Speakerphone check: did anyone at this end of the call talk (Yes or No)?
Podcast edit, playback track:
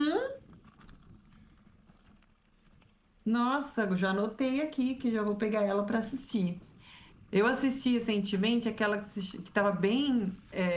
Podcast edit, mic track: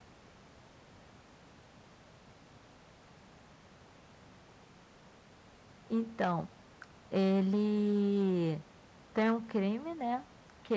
Yes